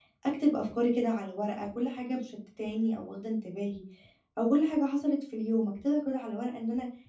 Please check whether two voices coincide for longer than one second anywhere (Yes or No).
No